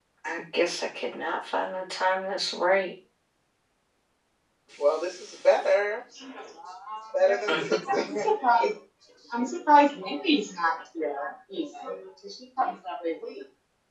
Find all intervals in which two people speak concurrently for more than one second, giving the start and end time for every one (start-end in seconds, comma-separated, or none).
7.1-8.6